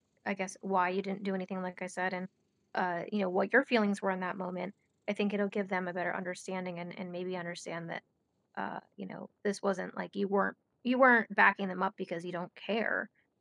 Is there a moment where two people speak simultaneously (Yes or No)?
No